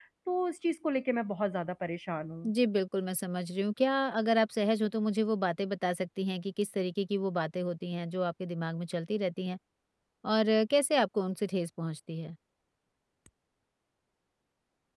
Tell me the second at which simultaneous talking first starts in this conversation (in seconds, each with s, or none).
none